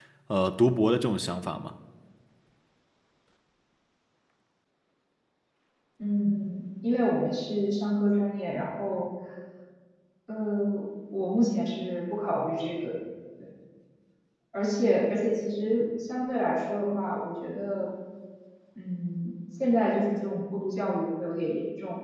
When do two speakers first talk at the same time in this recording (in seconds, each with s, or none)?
none